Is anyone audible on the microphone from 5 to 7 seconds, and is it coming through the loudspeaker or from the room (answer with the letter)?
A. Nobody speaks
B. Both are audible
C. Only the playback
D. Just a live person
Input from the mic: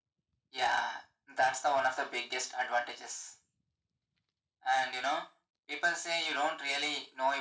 C